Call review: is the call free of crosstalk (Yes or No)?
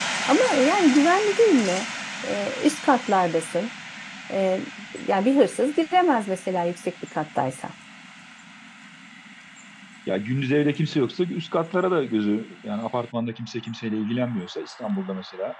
Yes